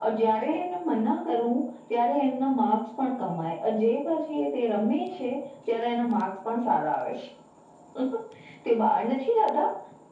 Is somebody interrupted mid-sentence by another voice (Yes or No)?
No